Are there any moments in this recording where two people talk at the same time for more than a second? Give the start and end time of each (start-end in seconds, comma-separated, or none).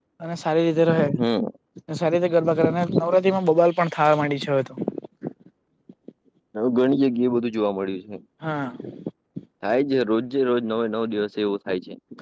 none